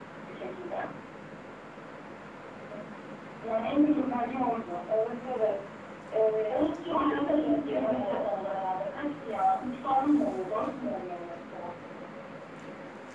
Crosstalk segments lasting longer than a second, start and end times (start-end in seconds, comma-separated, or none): 6.5-8.3